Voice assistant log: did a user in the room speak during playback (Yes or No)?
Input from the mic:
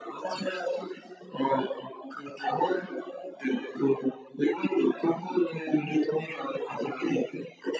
No